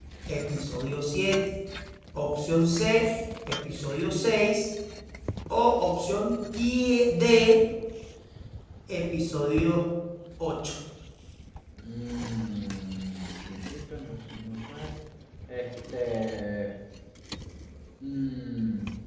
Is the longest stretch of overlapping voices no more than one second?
Yes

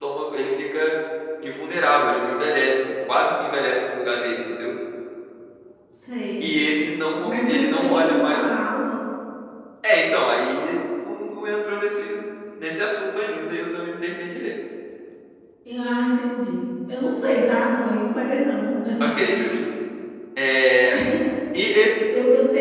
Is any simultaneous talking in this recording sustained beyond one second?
Yes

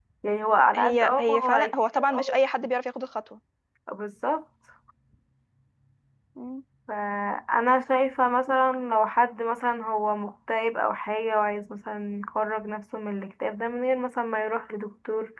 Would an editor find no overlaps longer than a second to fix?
No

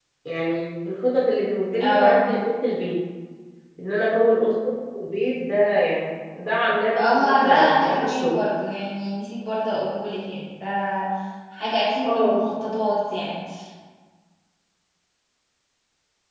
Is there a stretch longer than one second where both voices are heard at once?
Yes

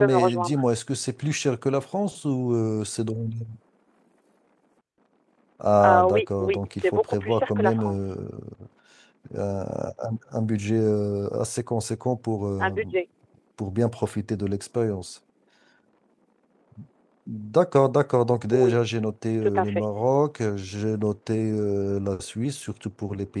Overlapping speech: Yes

